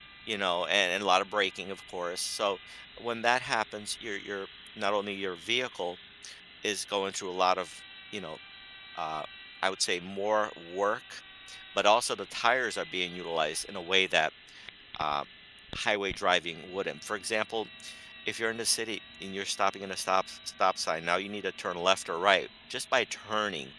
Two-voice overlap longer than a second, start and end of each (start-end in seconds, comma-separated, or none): none